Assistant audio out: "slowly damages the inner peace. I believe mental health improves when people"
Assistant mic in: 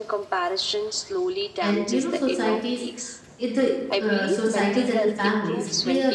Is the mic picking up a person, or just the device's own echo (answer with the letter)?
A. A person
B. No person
A